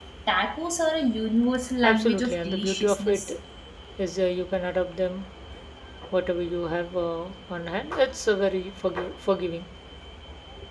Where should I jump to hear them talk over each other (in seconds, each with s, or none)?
1.8 s